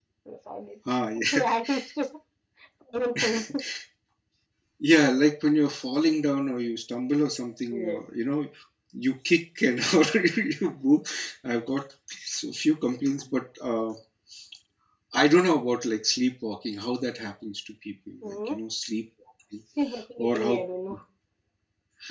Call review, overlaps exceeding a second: none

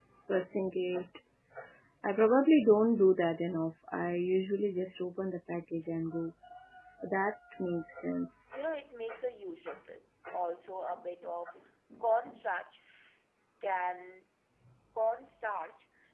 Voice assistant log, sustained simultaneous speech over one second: none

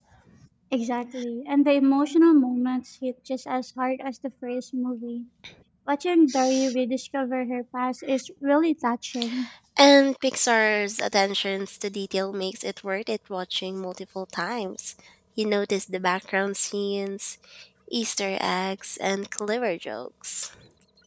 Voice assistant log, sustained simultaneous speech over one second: none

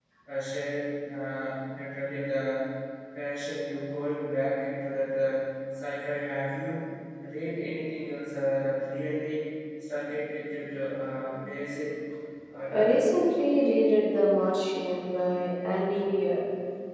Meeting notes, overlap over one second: none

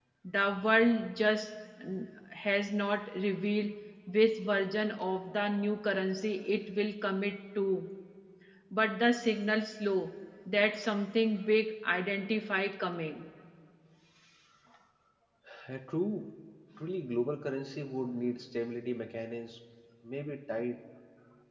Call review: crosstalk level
none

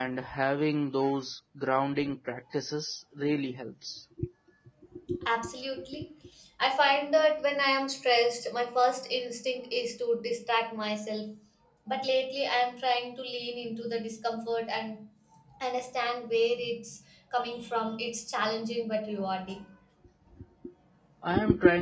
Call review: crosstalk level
none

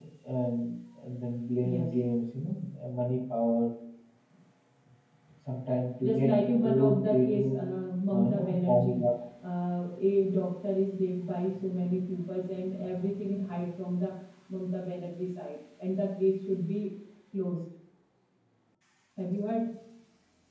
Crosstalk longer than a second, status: present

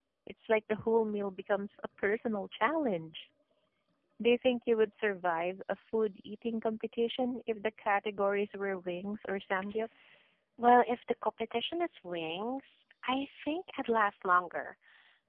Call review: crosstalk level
none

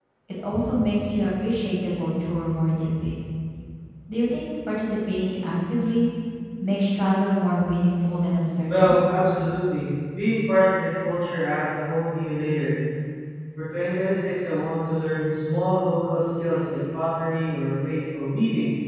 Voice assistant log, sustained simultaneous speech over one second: none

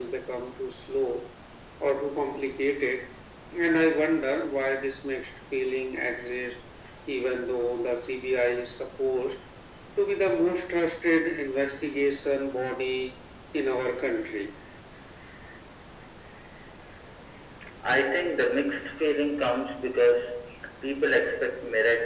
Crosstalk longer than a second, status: none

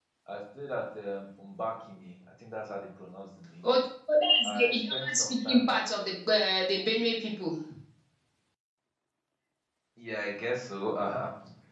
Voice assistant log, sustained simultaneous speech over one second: present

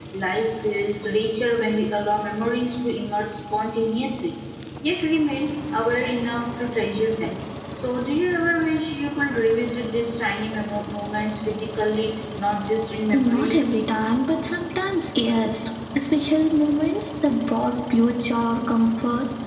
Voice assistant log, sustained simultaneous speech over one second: none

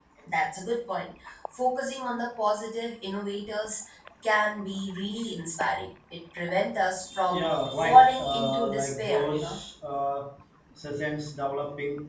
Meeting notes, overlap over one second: present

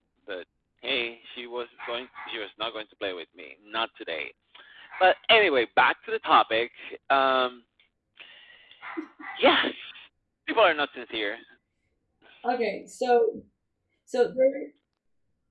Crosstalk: none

